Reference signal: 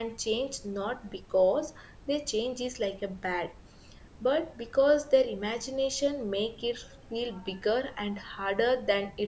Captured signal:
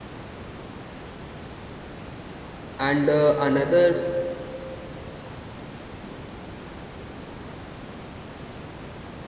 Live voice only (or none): and uh, another